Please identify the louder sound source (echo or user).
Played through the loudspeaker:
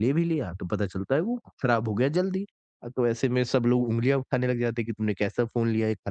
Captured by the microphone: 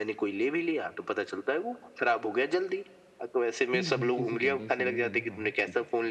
echo